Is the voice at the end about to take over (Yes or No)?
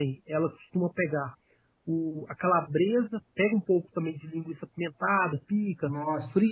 No